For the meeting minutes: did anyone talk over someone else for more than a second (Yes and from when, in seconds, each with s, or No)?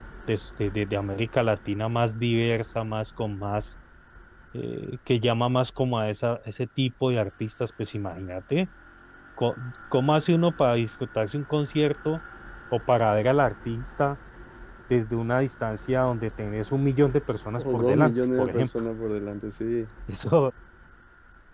Yes, from 17.6 s